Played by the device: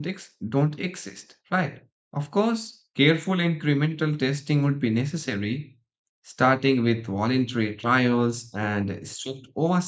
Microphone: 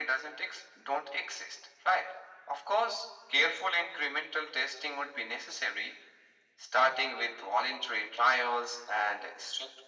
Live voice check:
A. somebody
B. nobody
B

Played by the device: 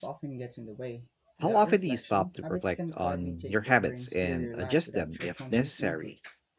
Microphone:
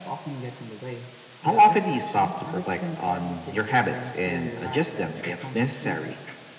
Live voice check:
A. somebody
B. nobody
B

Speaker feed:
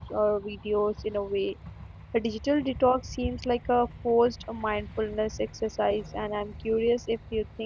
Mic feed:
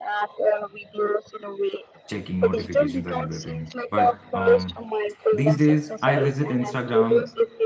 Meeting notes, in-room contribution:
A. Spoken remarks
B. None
A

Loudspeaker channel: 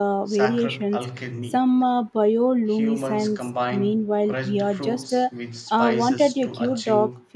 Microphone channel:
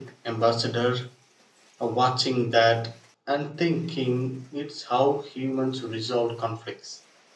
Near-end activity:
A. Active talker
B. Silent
A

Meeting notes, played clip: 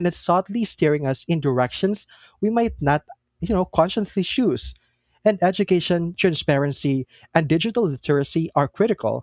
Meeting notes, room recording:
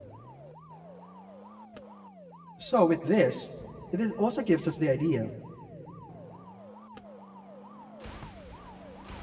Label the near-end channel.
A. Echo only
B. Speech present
B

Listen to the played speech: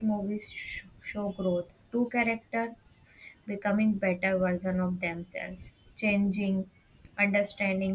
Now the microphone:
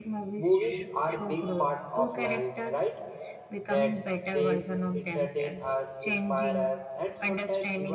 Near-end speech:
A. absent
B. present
B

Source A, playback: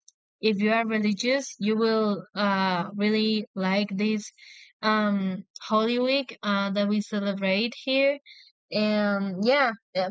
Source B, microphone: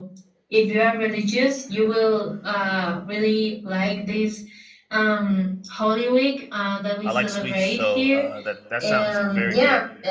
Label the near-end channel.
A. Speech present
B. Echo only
A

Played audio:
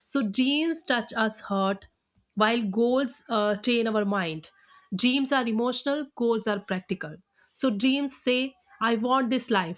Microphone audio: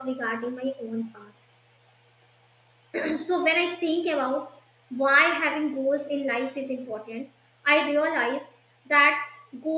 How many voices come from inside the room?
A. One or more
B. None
A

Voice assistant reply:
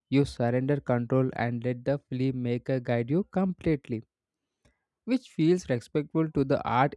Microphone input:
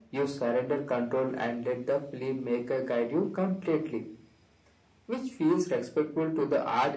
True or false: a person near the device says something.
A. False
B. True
A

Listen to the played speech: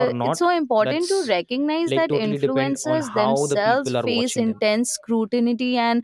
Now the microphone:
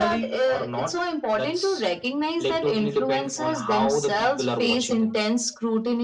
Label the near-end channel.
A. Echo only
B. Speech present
A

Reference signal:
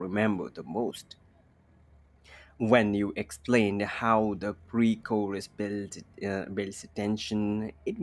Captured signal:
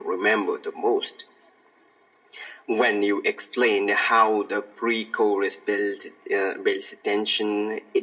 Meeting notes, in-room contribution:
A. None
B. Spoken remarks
A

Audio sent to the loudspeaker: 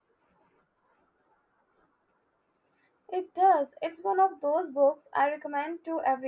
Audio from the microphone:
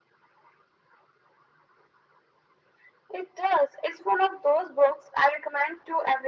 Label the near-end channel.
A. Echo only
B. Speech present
A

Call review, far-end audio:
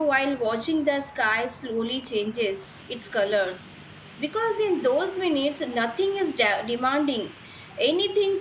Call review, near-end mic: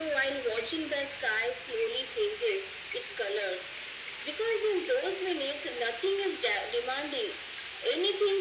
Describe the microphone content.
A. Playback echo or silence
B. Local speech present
A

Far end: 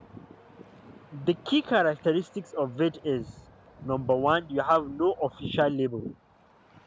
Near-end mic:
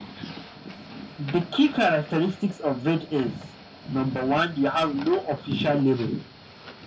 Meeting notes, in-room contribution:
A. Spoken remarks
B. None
B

